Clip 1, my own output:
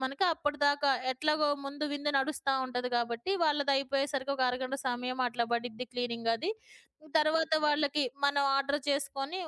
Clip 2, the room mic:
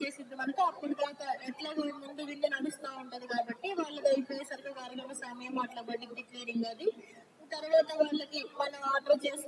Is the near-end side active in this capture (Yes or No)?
No